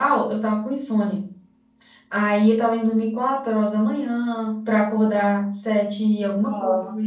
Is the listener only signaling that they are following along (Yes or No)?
Yes